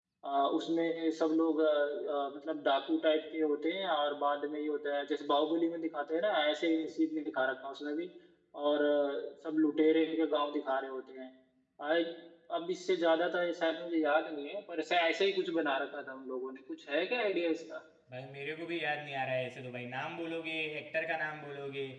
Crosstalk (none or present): none